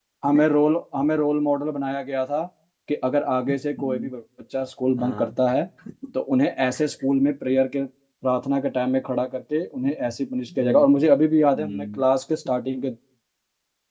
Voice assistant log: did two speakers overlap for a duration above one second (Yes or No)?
No